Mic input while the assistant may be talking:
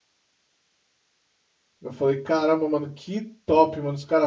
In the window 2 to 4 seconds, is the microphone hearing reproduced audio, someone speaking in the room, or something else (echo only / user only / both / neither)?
user only